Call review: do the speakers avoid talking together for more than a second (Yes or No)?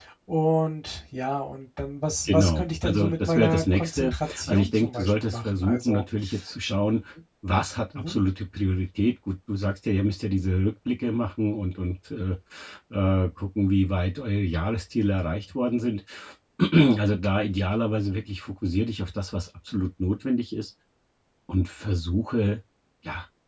No